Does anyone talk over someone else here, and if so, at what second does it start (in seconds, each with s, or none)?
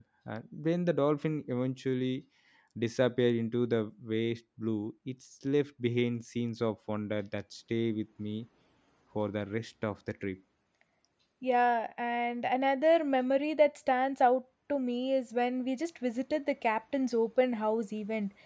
none